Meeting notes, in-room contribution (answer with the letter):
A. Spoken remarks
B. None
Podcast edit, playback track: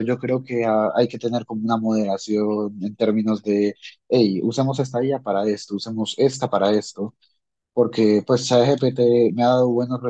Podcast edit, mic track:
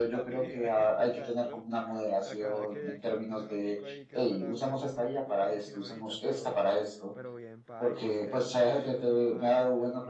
A